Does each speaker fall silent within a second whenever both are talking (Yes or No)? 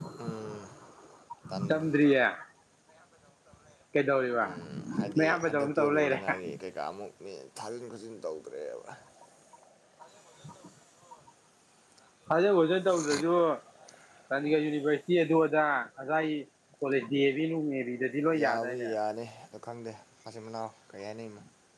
No